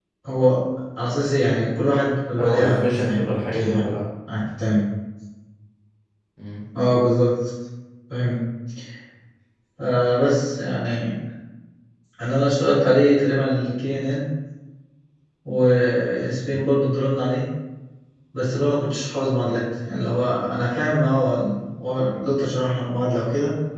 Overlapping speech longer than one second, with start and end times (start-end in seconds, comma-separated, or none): 2.4-3.9